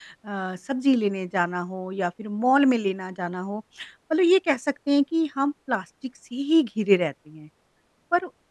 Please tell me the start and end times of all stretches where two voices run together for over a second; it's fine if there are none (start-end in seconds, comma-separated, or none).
none